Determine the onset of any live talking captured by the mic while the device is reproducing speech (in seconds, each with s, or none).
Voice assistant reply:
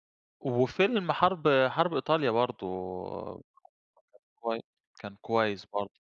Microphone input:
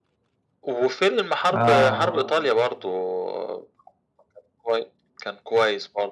1.5 s